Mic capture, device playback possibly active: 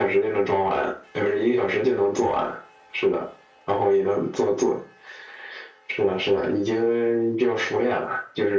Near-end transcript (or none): none